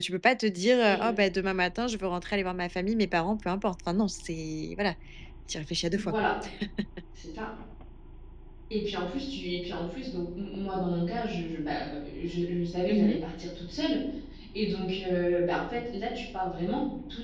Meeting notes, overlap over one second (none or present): none